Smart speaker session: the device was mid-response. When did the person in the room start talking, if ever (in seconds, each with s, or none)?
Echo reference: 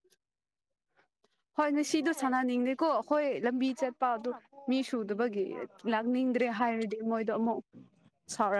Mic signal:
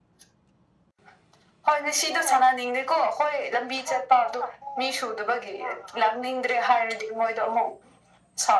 none